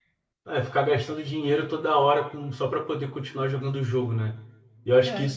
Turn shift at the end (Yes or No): No